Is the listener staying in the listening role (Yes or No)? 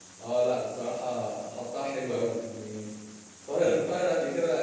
Yes